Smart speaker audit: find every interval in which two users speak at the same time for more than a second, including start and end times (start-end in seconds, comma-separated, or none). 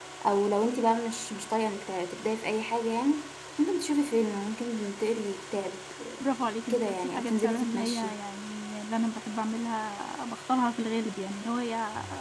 6.7-8.2